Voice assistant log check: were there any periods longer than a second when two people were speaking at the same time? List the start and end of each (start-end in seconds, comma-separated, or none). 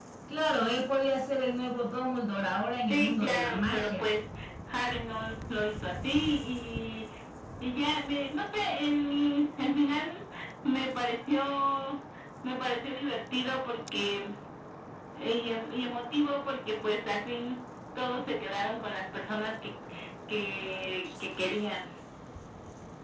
2.9-4.1